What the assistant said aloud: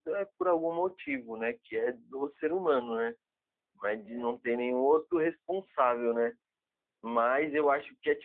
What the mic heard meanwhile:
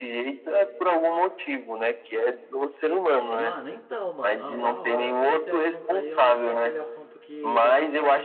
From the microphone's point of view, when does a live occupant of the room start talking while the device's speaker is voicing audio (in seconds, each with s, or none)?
2.9 s